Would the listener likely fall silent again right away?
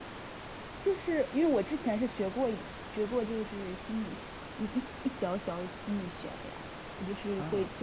Yes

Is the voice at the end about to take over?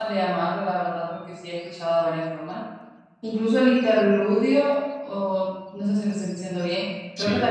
No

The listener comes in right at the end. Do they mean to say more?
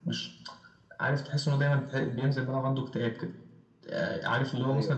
No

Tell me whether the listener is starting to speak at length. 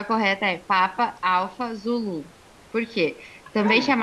No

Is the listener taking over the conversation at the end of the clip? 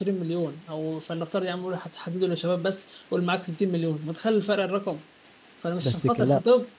No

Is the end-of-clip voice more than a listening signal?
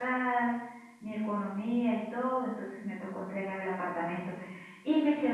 No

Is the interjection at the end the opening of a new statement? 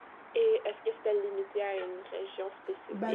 Yes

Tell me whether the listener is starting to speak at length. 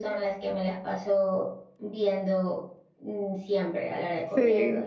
No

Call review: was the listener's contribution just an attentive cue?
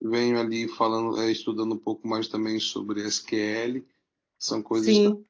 Yes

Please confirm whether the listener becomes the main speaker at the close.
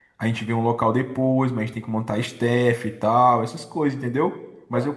No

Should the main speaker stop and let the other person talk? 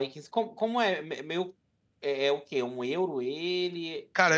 Yes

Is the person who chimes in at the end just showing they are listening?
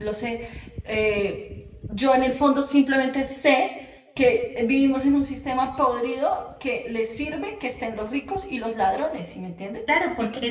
No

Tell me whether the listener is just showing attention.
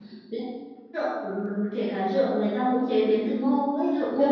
No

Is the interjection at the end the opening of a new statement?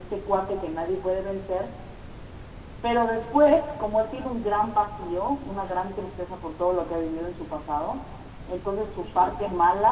No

